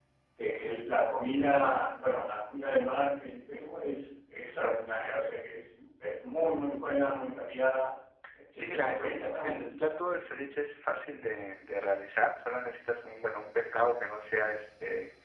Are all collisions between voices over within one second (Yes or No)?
No